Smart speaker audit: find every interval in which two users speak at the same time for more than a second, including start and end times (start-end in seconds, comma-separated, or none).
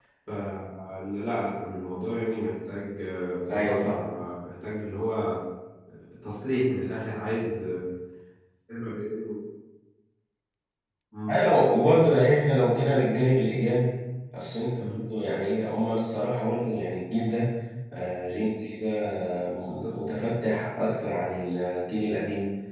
none